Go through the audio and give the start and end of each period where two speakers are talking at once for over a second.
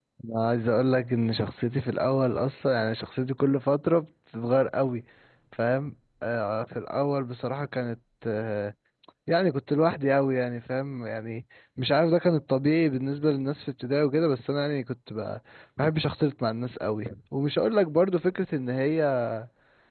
none

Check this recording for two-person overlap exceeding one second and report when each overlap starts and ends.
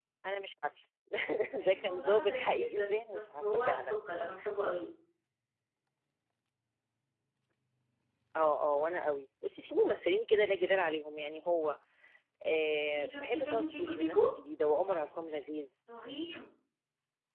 1.7-3.9, 12.7-14.2

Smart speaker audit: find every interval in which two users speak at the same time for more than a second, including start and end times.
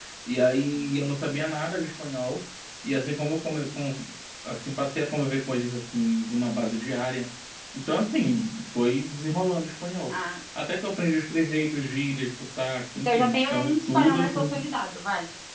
12.9-14.5

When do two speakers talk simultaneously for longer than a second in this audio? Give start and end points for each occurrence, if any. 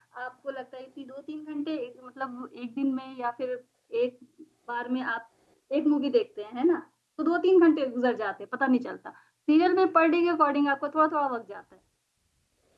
none

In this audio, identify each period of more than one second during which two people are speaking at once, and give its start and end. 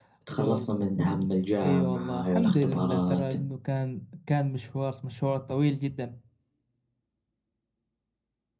1.6-3.3

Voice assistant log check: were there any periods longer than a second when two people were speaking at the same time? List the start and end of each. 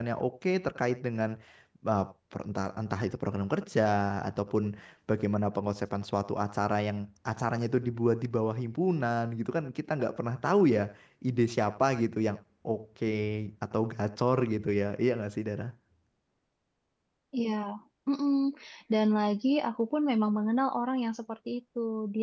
none

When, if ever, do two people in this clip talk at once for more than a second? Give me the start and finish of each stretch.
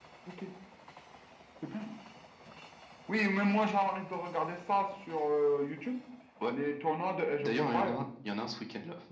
none

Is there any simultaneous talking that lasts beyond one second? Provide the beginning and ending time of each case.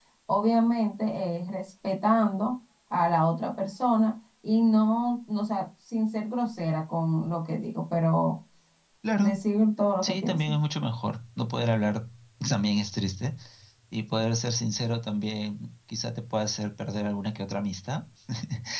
none

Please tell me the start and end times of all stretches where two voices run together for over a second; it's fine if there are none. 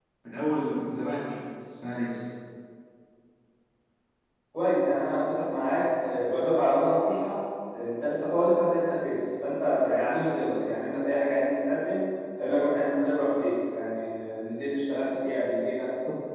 none

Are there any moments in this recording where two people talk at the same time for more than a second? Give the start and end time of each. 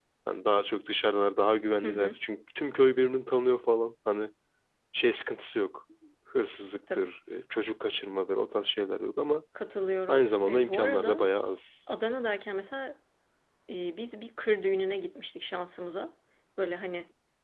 10.1-11.3

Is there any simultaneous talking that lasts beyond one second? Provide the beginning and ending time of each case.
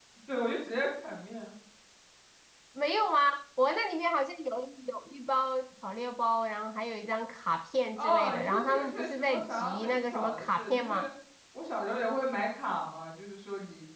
8.0-11.1

